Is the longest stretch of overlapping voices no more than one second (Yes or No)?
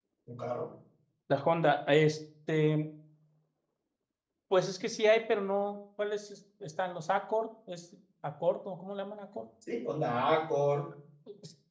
Yes